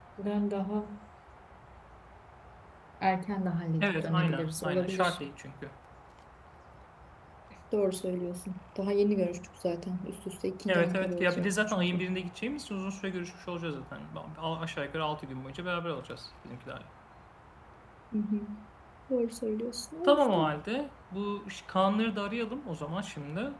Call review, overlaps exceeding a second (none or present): present